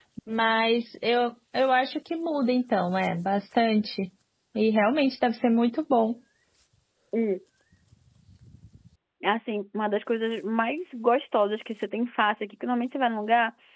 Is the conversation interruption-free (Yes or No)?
Yes